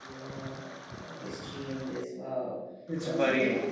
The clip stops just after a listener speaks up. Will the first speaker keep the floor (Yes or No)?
Yes